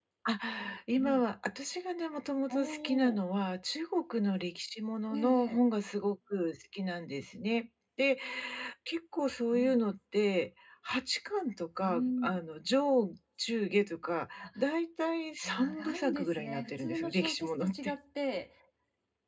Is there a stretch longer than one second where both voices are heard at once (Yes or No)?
Yes